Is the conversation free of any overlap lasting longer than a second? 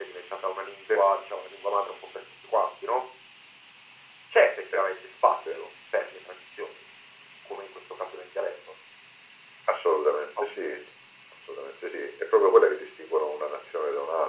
Yes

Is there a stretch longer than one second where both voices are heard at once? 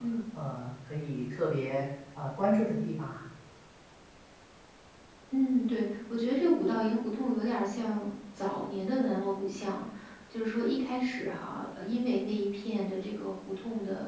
No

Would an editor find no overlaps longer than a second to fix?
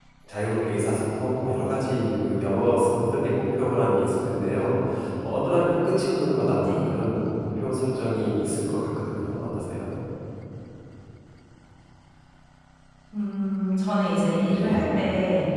Yes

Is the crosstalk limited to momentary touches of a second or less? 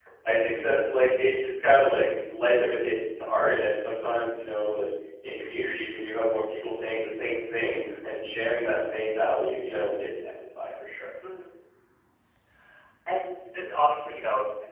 Yes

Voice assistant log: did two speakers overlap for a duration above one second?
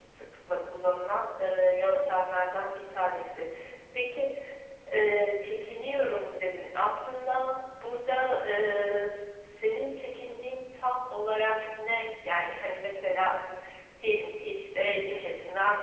No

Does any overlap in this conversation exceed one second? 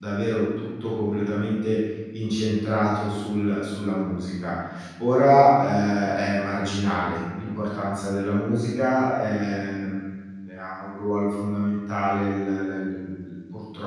No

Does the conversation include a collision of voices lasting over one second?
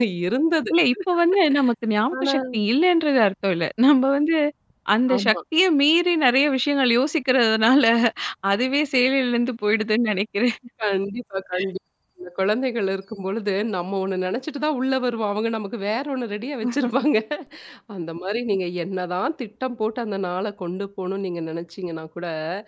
No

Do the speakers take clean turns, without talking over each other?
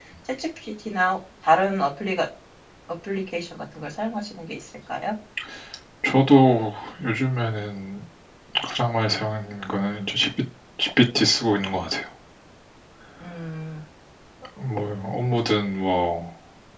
Yes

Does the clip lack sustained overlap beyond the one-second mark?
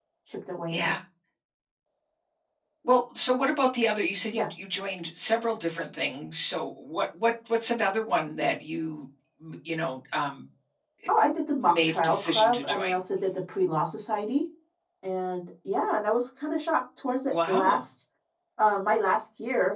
No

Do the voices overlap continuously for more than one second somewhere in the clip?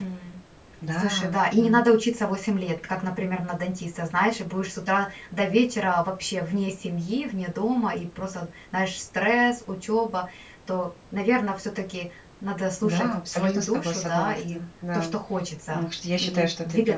Yes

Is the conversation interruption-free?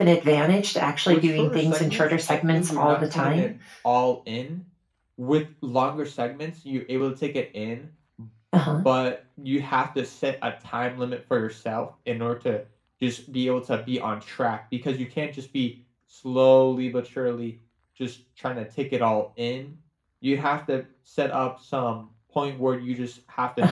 No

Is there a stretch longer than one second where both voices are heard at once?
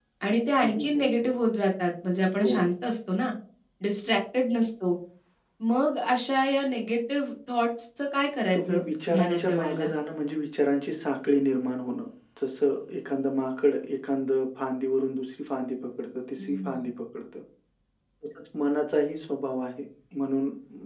Yes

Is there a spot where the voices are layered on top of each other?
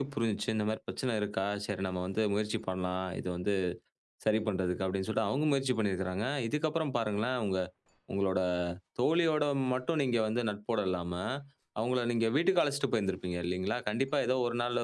No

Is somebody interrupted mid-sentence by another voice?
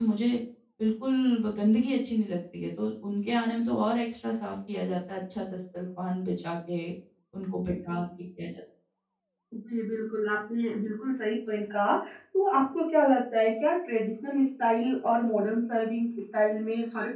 No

